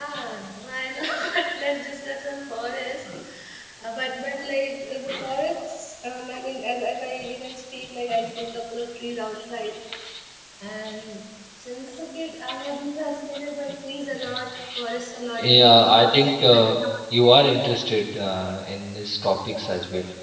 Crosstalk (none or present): present